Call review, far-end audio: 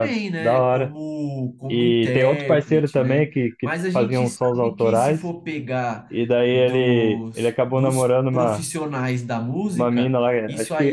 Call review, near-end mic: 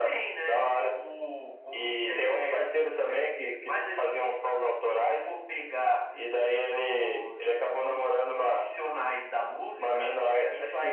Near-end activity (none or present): none